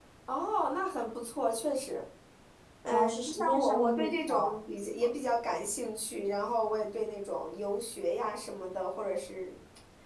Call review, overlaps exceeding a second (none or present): present